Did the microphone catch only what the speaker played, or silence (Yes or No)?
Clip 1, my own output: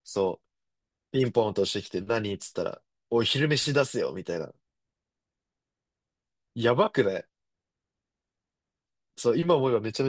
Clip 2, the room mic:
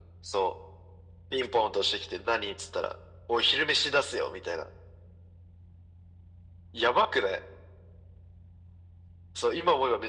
Yes